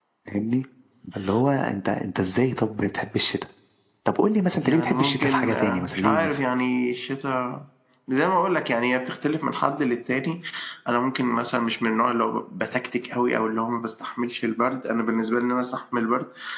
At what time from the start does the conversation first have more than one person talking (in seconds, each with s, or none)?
4.6 s